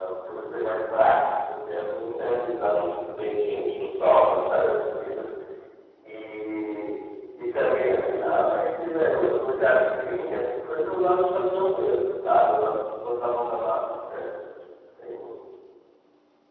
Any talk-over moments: No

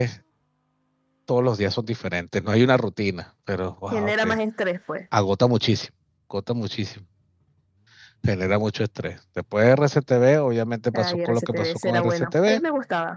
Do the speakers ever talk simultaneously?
Yes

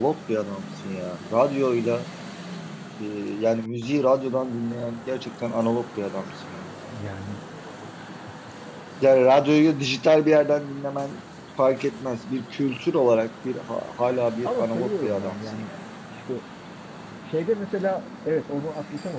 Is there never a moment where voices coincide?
No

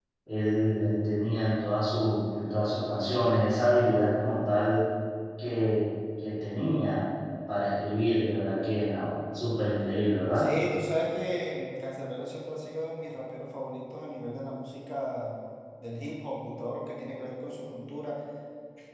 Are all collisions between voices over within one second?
Yes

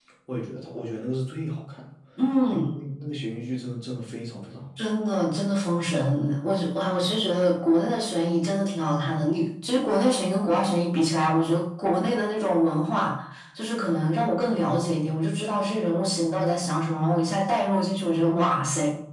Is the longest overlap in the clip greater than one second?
No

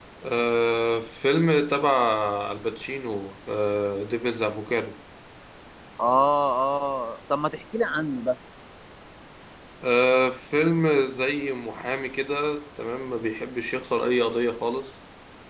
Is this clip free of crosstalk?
Yes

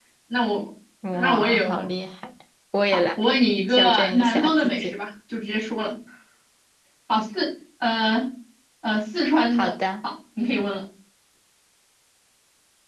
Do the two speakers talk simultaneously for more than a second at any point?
Yes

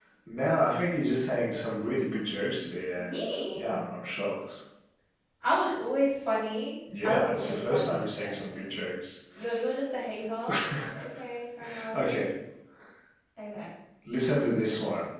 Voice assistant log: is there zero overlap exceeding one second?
No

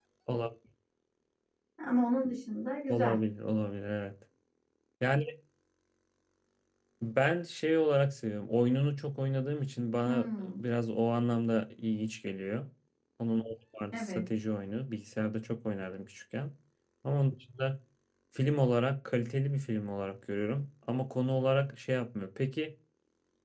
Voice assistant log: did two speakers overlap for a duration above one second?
No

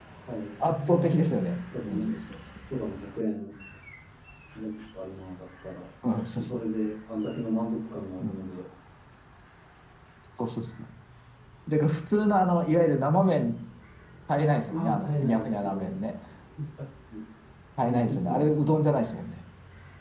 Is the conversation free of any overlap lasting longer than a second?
No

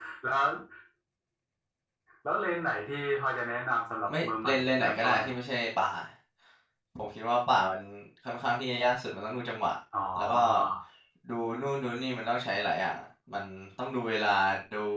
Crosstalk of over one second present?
Yes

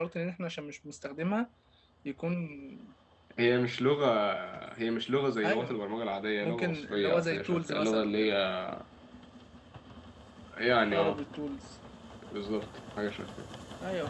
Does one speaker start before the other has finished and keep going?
Yes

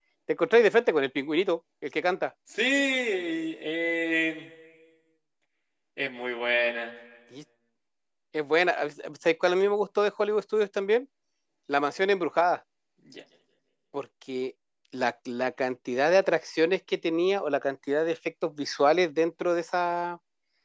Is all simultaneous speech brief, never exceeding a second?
Yes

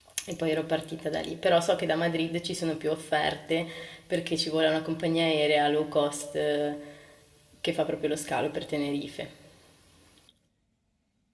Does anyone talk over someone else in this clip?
No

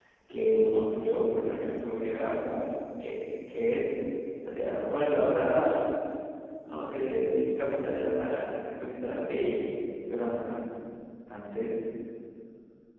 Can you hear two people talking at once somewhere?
No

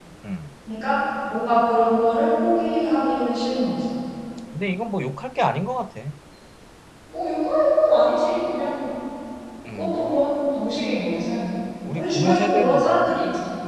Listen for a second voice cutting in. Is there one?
Yes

